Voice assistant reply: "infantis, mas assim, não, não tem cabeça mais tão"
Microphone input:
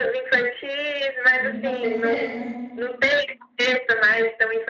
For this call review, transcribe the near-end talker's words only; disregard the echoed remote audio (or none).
Sim, com certeza.